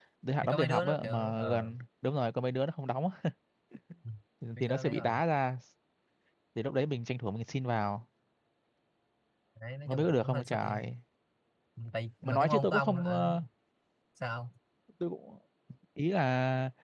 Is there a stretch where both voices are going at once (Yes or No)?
Yes